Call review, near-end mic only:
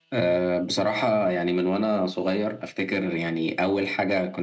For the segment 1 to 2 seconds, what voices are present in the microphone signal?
echo only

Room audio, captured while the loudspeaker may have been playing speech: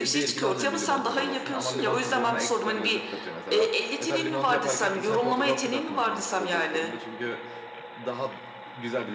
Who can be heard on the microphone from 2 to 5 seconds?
both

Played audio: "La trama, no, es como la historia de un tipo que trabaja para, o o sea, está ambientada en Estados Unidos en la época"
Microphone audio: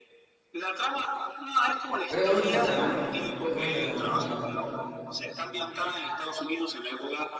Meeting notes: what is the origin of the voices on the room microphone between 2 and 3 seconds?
both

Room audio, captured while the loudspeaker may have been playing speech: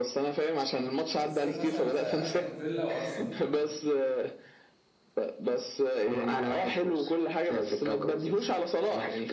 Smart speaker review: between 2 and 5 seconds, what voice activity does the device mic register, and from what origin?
both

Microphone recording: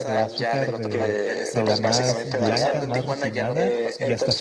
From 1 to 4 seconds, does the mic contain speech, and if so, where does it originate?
both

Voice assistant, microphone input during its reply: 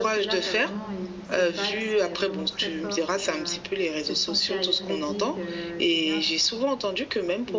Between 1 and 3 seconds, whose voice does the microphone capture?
both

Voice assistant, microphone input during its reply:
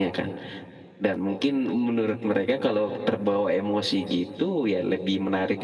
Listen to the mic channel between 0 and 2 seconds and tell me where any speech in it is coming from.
echo only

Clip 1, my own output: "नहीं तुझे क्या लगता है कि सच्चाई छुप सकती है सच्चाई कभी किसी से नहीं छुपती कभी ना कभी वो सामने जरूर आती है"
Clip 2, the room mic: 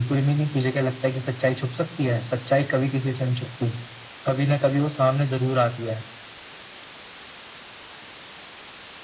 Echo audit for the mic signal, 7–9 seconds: neither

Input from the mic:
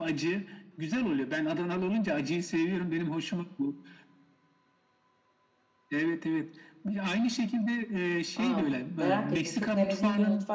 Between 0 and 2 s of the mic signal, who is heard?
echo only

